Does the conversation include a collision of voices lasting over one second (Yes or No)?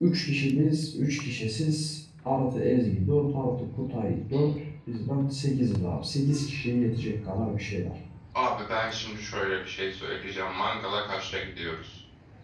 No